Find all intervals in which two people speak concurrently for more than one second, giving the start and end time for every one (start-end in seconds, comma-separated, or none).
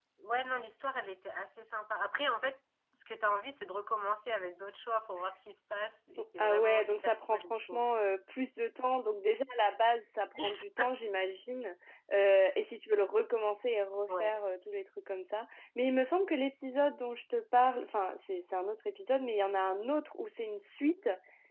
6.4-7.8